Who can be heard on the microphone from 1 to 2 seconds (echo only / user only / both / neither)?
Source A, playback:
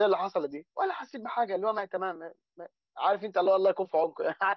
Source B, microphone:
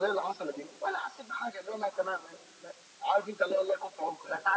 echo only